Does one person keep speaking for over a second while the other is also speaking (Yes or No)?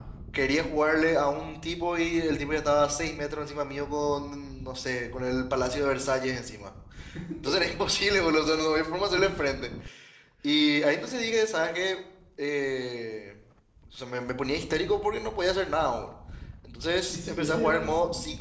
Yes